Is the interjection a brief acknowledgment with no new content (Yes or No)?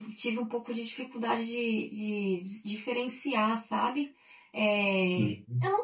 Yes